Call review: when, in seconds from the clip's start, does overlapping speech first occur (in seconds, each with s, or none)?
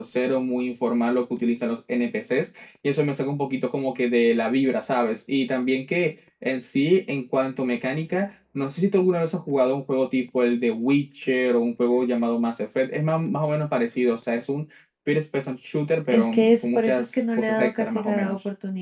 16.1 s